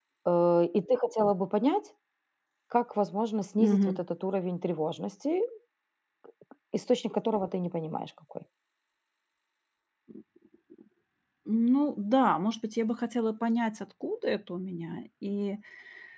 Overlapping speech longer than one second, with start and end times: none

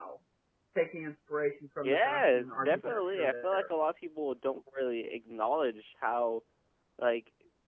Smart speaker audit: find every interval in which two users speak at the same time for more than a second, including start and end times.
1.8-3.6

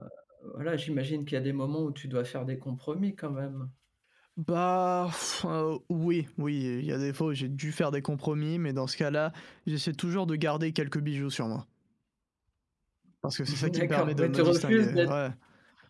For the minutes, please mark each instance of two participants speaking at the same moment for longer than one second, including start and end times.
13.6-15.1

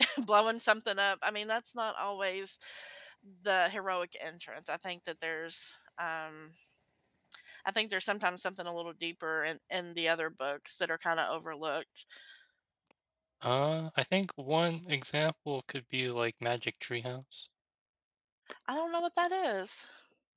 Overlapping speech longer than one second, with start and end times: none

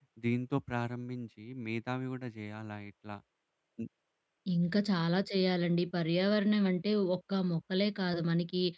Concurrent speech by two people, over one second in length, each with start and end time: none

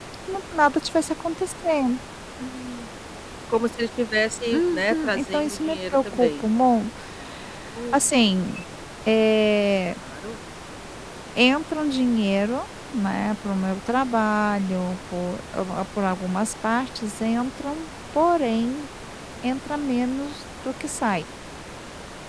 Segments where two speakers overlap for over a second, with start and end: 4.5-6.4

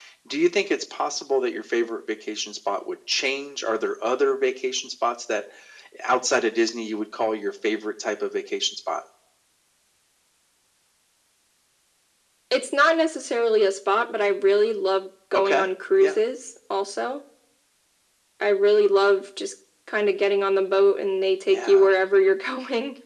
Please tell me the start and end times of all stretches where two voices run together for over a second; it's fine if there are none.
none

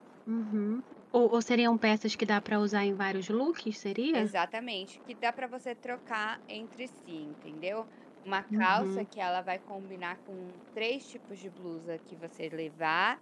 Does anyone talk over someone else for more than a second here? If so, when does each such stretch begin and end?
none

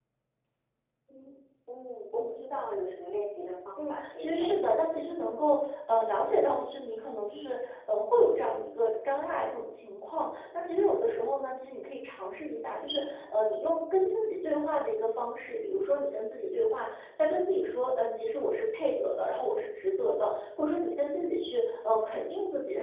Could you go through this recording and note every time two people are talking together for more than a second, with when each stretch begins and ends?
3.8-5.0

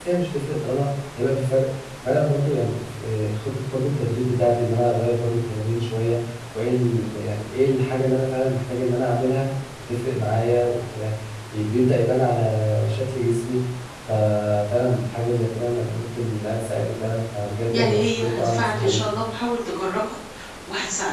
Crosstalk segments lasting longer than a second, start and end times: 17.7-19.0

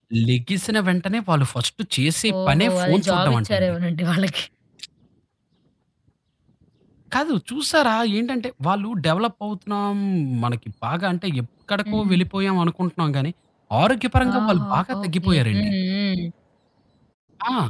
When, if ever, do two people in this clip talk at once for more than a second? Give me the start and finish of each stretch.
2.5-3.7, 14.4-15.7

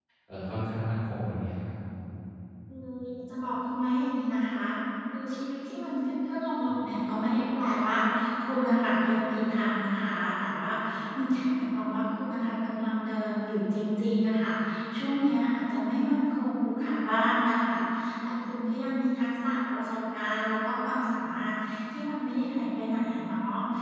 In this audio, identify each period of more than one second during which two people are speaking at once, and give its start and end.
none

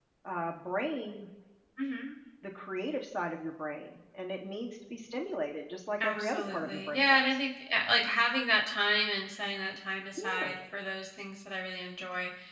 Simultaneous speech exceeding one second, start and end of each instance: 6.0-7.3

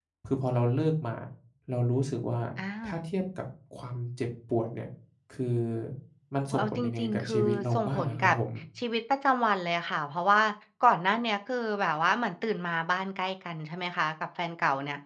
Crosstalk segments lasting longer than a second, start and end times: 6.5-8.3

